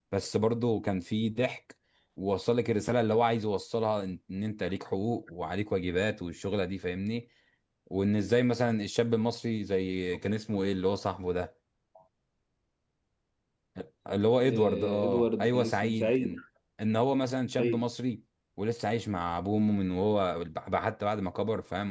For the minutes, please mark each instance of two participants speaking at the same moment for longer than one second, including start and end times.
14.4-16.4

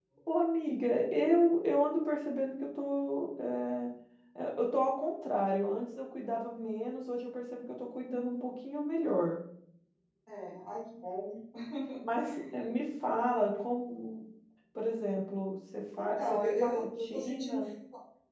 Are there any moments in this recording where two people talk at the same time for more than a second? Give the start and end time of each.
16.0-17.6

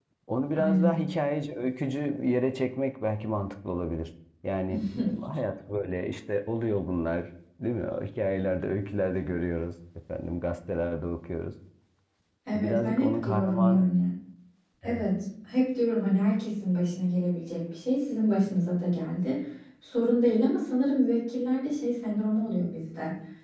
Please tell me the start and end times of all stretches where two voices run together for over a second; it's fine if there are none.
12.5-13.9

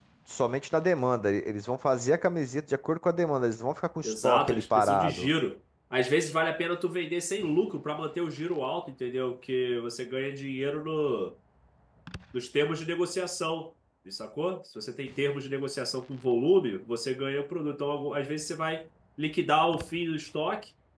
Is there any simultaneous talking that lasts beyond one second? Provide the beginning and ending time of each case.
4.0-5.3

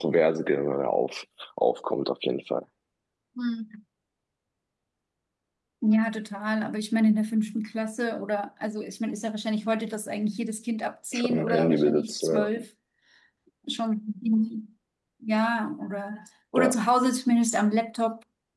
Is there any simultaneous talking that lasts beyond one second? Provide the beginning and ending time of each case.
11.1-12.5

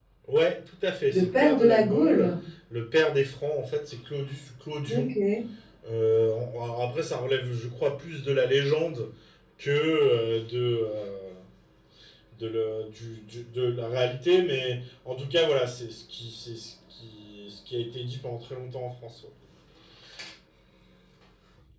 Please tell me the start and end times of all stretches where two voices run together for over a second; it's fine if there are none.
1.1-2.3

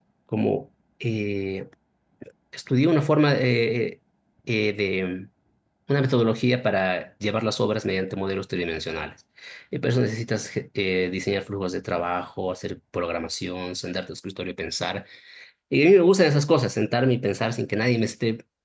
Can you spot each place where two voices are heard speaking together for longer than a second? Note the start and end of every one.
none

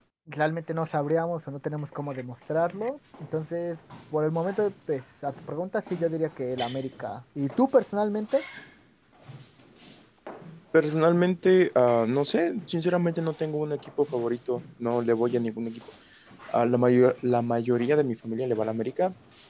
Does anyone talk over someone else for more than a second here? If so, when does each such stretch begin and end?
none

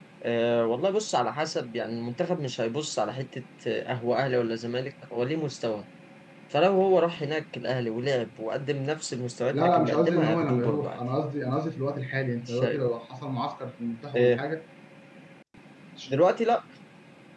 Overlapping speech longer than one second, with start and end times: 9.5-11.0

